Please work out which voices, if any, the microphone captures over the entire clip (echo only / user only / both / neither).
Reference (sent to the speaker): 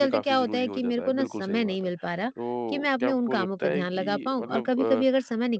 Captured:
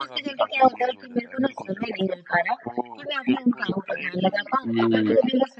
both